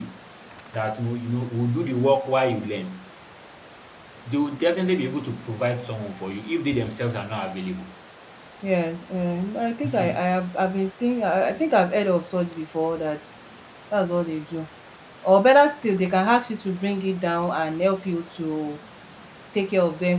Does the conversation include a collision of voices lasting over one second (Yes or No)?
No